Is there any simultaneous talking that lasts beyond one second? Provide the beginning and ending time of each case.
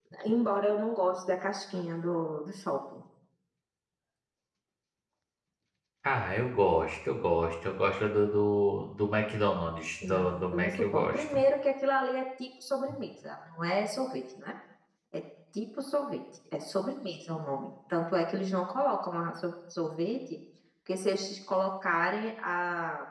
10.0-11.4

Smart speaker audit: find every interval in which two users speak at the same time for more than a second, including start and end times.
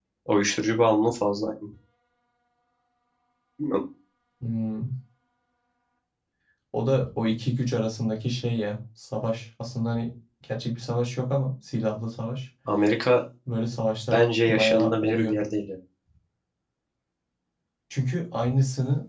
14.1-15.3

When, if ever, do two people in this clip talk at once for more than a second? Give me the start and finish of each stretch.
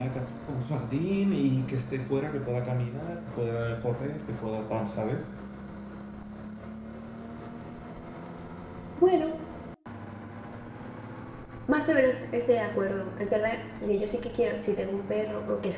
none

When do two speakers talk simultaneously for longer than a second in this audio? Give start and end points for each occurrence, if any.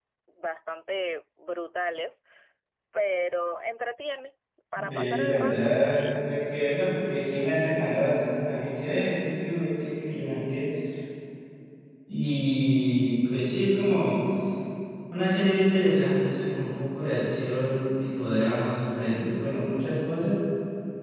4.8-6.3

